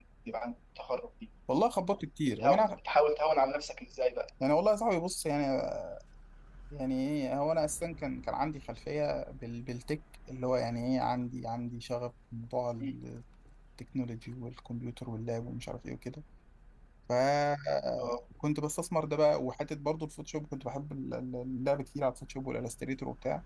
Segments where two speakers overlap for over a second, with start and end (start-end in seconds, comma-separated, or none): none